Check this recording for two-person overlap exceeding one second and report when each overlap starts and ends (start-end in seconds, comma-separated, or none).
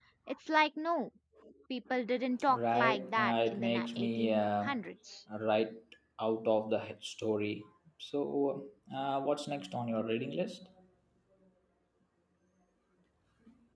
2.5-4.7